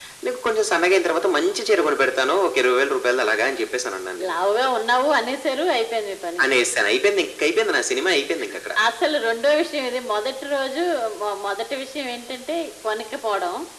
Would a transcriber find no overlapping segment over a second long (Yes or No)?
Yes